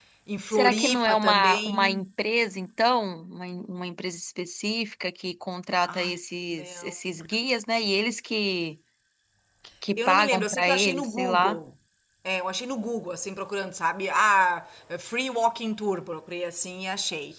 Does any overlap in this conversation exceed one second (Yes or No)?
Yes